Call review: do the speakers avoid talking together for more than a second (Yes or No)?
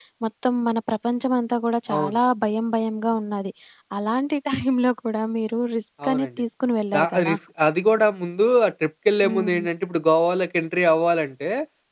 Yes